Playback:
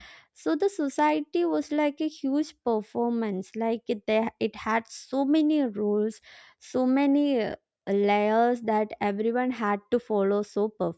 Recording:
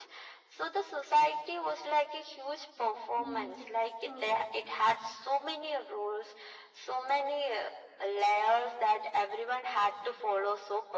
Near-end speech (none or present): present